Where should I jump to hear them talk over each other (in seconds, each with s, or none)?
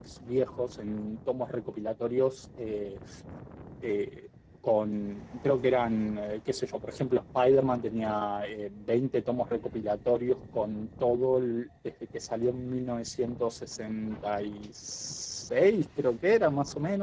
none